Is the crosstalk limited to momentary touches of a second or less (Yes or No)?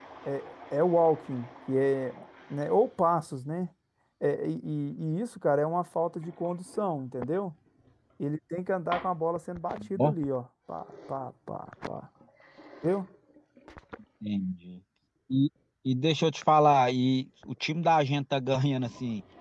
Yes